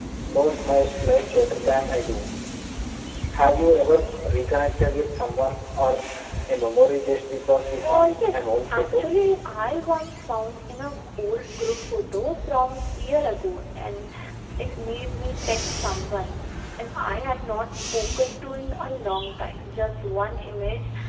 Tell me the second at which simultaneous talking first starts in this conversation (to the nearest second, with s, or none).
8 s